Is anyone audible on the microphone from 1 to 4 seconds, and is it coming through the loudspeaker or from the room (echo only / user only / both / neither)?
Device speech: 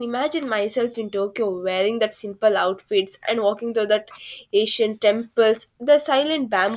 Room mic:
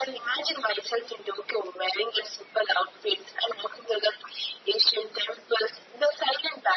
echo only